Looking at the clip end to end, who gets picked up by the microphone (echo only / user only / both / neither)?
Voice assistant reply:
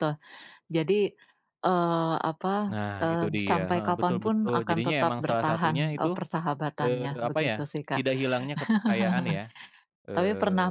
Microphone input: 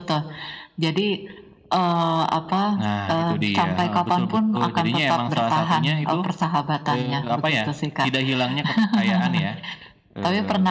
echo only